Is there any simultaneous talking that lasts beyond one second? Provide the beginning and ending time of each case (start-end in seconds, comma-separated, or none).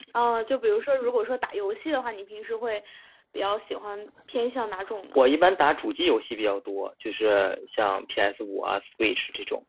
none